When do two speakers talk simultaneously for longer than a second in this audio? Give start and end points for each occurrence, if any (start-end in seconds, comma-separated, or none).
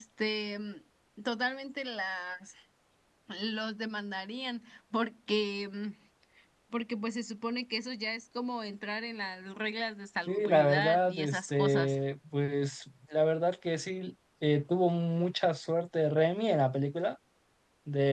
10.3-12.0